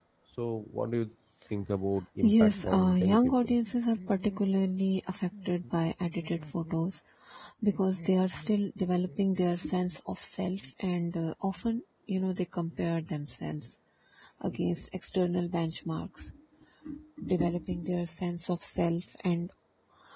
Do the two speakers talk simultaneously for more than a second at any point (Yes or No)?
Yes